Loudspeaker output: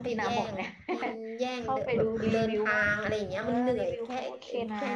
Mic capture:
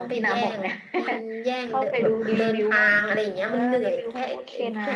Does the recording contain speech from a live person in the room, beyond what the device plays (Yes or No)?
No